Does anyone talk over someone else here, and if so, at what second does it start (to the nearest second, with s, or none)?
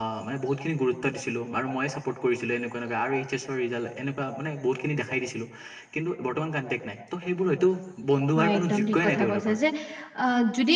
8 s